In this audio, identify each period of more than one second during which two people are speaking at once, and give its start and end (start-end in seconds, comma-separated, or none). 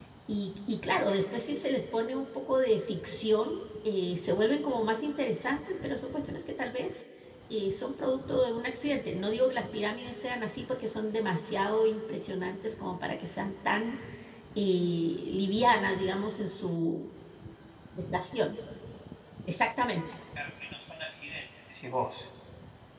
none